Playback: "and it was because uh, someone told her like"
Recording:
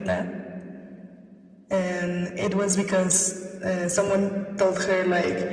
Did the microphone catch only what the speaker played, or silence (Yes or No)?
Yes